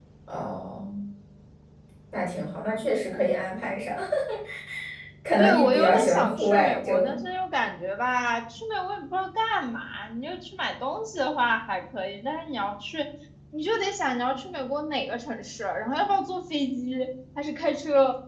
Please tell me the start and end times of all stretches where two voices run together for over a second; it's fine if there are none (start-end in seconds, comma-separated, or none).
5.4-7.2